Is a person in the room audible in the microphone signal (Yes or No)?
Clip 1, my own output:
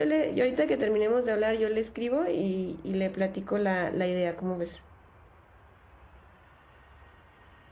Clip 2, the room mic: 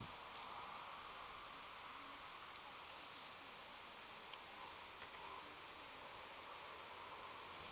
No